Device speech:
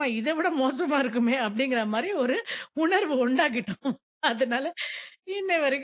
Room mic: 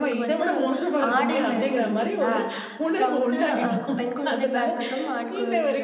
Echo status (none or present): present